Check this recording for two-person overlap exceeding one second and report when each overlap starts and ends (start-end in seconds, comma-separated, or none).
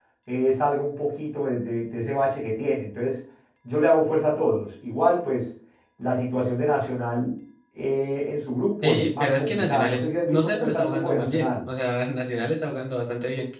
8.8-11.7